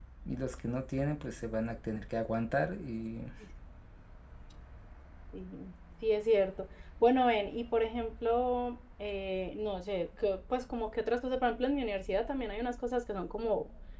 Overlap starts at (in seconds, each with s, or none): none